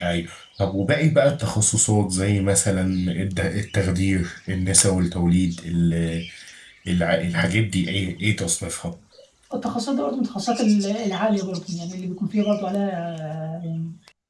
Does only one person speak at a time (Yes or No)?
Yes